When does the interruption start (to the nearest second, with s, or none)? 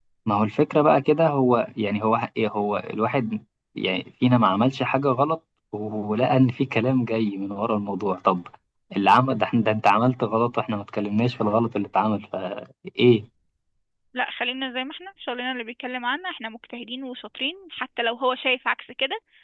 none